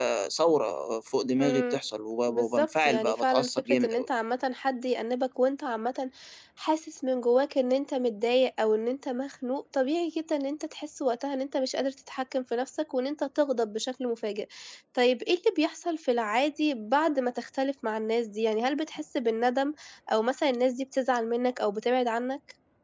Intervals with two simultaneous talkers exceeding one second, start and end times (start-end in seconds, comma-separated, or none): 2.3-4.1